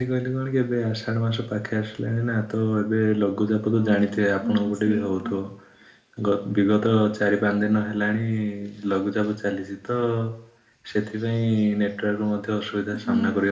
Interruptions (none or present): present